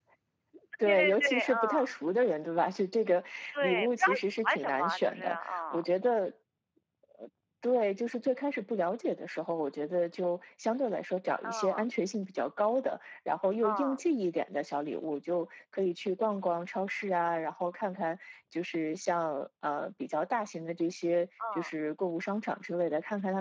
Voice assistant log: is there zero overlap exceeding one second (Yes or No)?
No